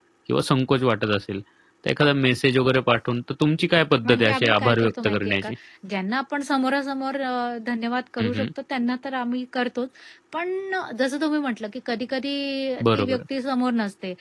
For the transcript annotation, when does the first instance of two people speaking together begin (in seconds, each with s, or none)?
4.0 s